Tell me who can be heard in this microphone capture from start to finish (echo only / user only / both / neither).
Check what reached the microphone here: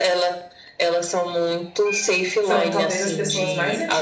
both